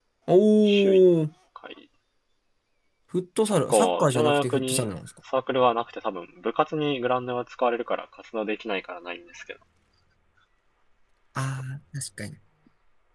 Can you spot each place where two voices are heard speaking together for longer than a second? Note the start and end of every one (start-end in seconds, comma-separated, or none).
3.5-4.8